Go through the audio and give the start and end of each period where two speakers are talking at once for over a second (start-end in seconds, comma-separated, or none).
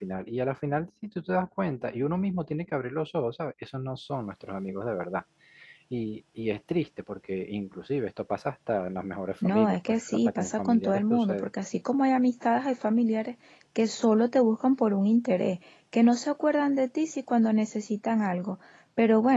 9.4-11.5